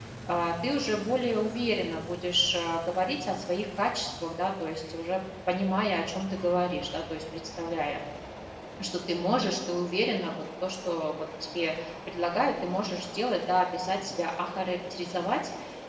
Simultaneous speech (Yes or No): No